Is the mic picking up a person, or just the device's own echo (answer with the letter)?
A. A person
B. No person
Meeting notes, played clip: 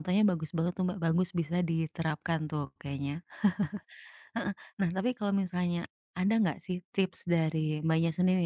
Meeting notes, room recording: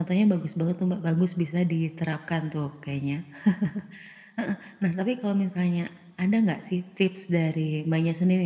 B